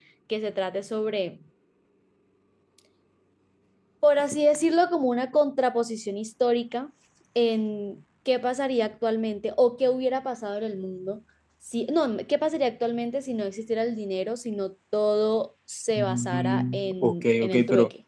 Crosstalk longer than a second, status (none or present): present